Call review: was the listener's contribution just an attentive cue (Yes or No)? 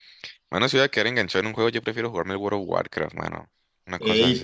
No